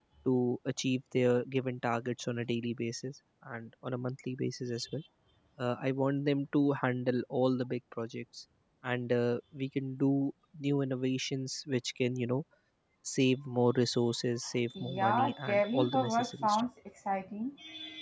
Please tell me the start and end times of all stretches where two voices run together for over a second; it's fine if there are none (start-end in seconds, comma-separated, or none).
14.8-16.7